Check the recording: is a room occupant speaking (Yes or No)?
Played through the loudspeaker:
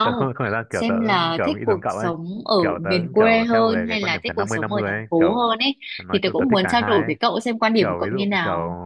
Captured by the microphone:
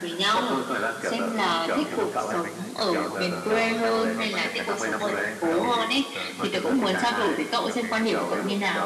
Yes